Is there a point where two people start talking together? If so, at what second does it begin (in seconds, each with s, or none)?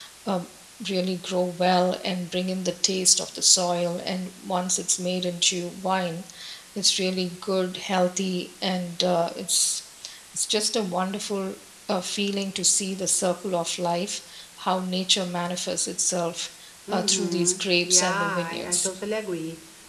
16.9 s